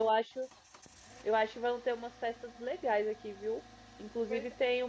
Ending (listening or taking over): listening